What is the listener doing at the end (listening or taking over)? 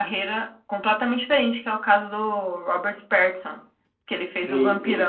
taking over